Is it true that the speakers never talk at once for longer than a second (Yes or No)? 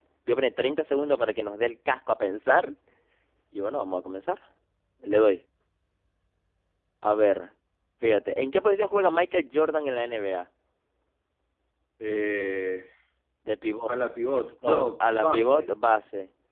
No